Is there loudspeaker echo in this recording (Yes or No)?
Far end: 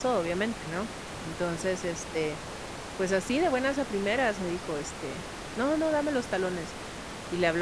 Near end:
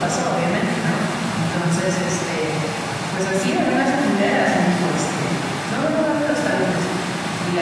Yes